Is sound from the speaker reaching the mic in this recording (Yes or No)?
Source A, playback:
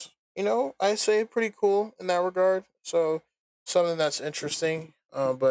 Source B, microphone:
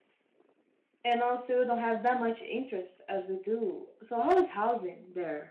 No